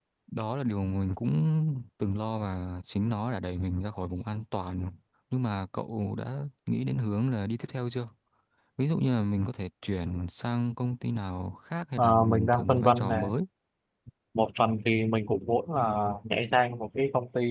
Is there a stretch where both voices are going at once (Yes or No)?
Yes